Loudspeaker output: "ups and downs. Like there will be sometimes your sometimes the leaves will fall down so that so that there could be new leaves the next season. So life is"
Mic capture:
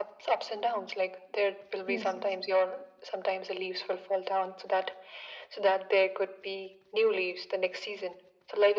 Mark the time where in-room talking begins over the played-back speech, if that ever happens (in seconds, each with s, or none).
1.9 s